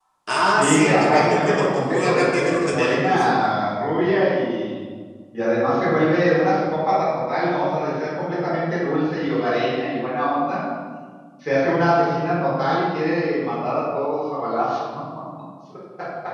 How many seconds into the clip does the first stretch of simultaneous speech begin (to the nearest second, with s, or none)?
1 s